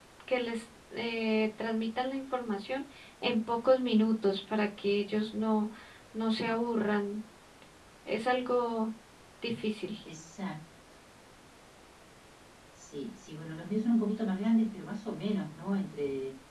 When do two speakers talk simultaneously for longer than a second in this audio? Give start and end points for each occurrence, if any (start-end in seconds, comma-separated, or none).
none